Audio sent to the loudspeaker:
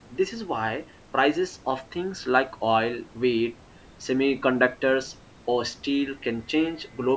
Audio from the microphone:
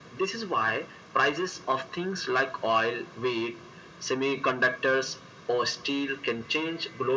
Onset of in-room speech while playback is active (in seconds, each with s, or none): none